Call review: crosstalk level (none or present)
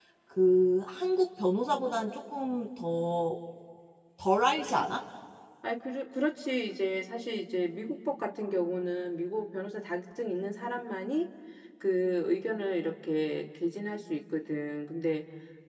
none